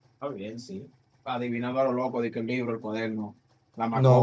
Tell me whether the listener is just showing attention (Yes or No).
No